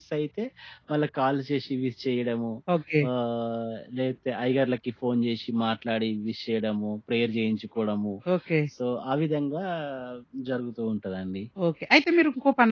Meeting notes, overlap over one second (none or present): none